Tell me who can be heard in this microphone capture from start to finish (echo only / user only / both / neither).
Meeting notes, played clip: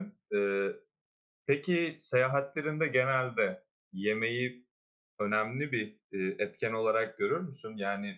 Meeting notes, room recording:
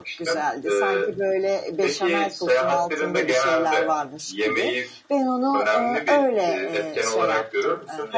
both